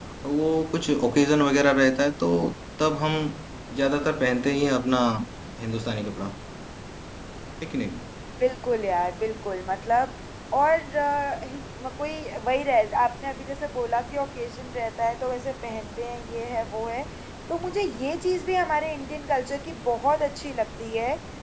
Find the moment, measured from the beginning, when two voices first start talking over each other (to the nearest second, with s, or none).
none